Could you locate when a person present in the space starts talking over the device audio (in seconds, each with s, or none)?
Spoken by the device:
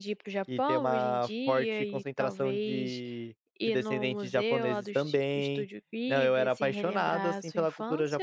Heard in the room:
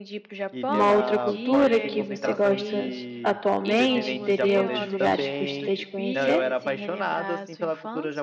0.7 s